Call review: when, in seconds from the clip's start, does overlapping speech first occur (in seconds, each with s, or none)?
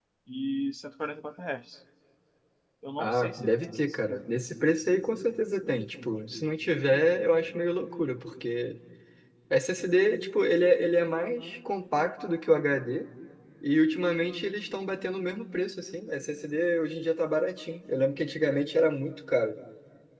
3.0 s